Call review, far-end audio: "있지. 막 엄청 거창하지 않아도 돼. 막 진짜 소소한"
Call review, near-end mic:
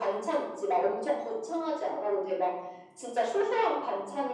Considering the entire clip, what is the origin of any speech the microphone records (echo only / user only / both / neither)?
echo only